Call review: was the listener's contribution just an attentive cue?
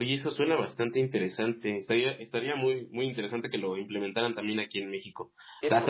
Yes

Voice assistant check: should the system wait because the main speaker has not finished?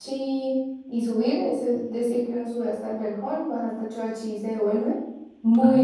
No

